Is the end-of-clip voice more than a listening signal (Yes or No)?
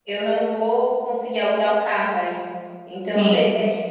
No